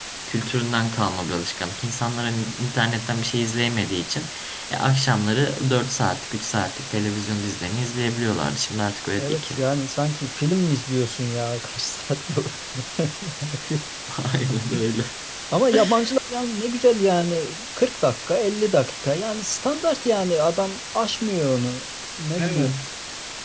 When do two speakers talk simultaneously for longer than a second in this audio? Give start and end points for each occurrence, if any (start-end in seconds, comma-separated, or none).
none